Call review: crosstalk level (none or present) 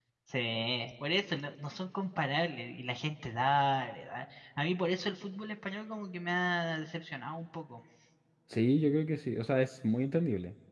none